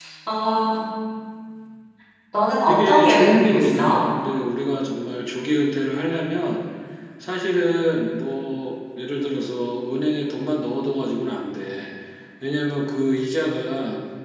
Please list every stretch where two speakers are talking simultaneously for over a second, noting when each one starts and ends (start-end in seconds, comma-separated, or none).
2.7-4.0